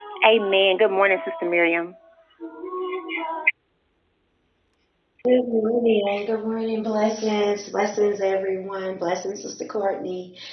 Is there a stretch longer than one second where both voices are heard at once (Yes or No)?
No